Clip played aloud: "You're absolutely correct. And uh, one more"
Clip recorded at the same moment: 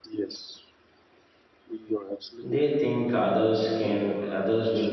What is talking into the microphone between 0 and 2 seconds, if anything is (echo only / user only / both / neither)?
echo only